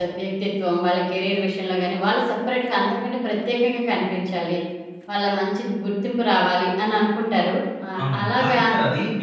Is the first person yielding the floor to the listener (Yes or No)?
Yes